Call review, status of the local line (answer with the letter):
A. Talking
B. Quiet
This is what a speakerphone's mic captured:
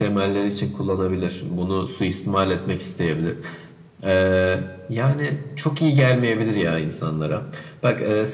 B